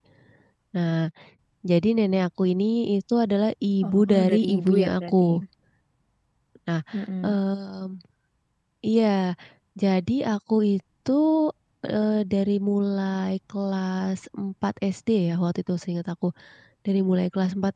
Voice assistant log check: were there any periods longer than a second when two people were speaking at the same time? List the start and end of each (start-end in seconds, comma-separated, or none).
3.9-5.3